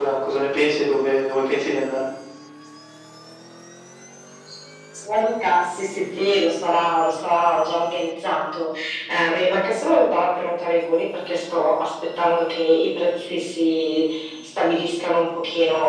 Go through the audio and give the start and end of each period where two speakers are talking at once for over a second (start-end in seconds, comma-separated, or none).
none